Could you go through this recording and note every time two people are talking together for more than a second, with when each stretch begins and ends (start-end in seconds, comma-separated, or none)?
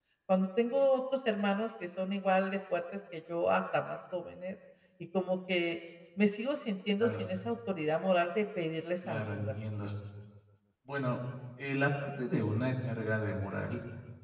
none